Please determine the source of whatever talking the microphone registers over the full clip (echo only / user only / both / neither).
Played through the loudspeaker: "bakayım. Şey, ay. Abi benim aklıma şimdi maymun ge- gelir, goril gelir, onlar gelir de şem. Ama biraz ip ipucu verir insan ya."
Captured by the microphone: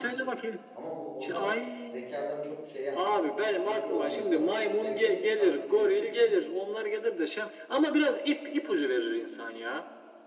both